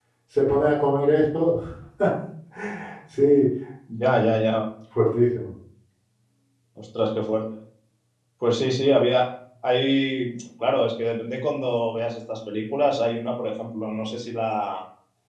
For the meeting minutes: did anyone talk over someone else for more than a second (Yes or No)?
No